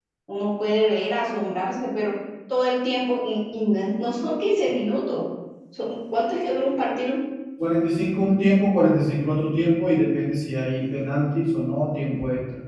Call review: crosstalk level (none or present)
none